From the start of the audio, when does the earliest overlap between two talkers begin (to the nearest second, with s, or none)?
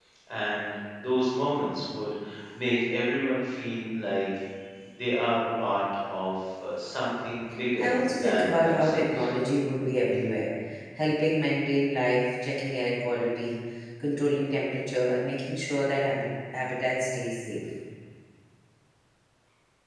8 s